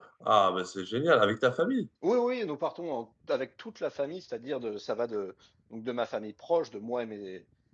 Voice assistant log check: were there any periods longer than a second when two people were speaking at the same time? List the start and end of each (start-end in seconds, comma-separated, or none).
none